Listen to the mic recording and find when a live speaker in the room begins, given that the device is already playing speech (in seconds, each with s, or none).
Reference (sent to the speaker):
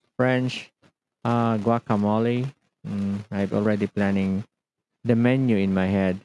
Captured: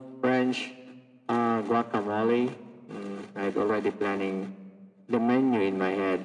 none